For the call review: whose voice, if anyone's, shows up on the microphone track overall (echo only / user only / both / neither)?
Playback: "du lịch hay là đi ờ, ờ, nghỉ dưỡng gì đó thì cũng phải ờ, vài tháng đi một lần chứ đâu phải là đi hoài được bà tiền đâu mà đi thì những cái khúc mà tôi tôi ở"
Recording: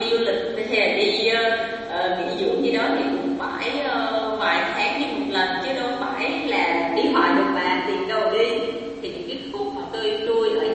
echo only